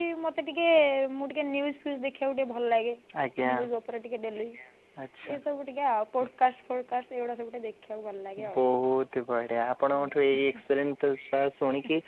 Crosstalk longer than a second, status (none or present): none